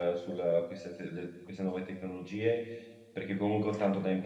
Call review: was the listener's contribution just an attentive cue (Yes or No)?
Yes